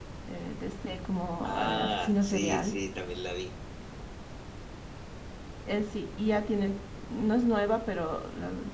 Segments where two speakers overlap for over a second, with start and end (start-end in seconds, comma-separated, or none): 1.4-2.7